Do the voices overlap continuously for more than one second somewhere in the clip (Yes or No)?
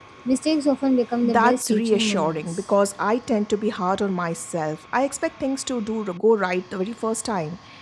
Yes